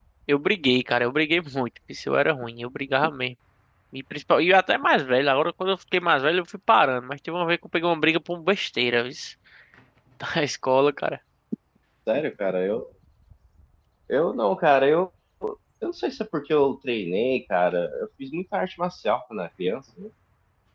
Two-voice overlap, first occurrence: none

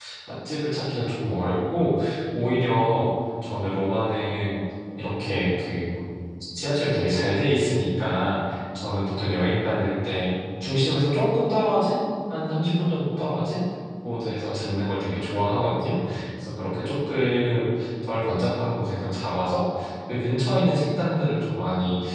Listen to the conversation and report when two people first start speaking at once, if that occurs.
none

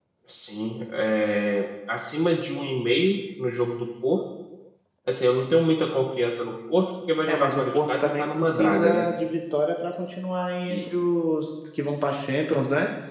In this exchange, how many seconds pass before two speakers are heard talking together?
7.3 s

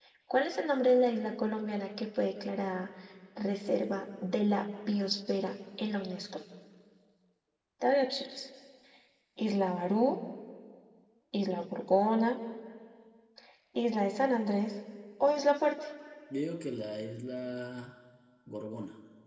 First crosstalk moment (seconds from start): none

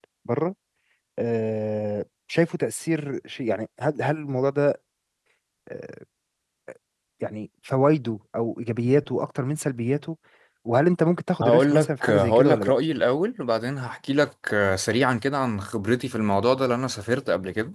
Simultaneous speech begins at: 11.4 s

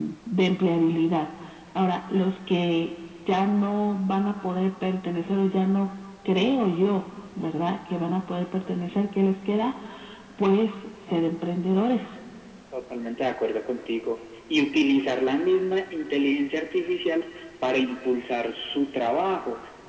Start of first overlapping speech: none

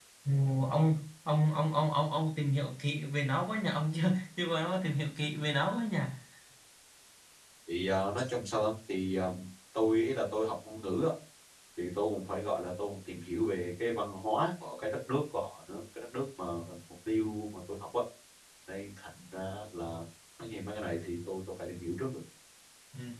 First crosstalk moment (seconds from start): none

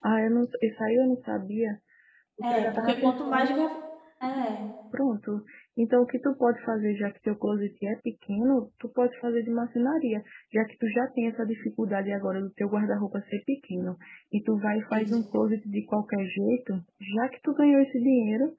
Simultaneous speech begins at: 2.4 s

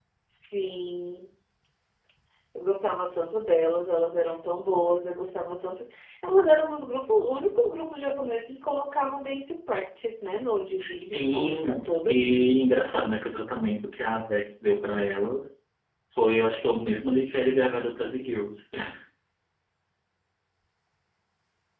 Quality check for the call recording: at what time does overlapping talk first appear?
10.8 s

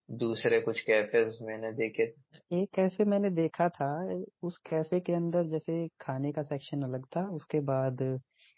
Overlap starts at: none

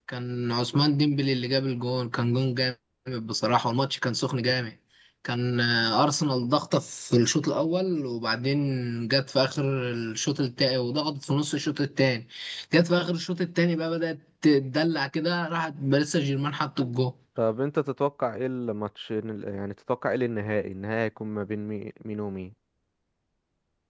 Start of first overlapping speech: none

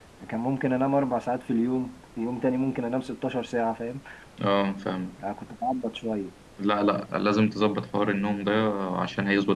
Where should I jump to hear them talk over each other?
none

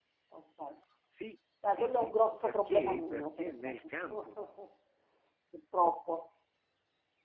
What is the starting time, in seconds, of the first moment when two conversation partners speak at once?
1.7 s

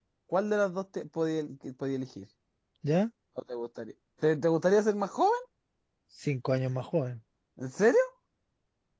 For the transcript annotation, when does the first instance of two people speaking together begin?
none

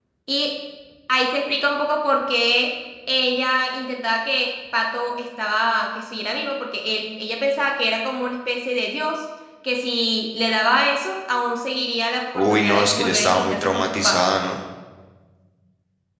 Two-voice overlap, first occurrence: 12.3 s

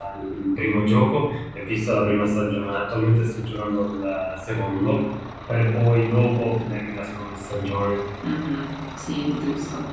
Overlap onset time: none

